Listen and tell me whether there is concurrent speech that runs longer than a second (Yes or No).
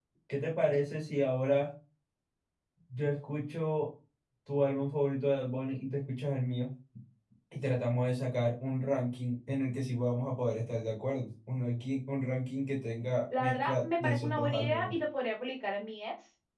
Yes